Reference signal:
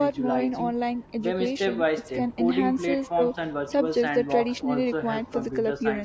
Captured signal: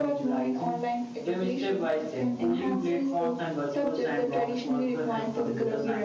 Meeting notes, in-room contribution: none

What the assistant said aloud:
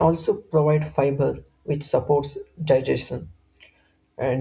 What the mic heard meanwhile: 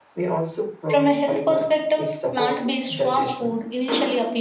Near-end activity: present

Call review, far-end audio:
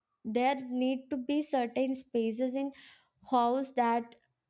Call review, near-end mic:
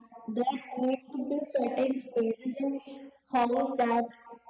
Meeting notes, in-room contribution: none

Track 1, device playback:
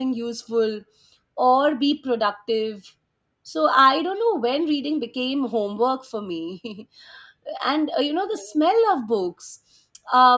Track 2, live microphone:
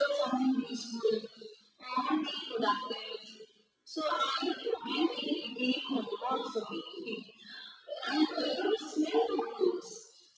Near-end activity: none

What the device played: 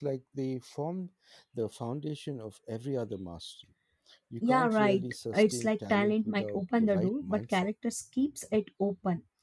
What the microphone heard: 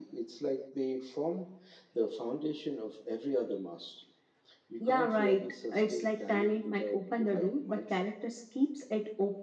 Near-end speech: none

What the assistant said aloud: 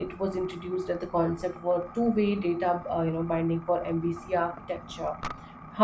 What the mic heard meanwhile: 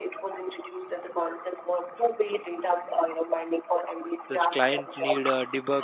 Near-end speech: present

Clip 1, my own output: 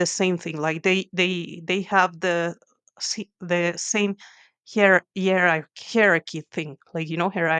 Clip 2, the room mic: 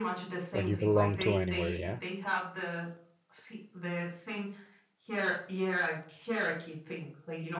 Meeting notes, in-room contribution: present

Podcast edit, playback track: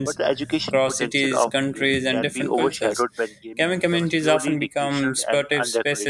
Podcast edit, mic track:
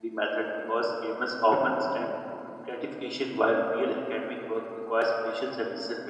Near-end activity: present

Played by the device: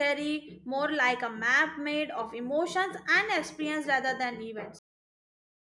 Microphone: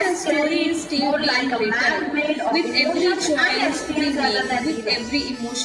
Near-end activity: present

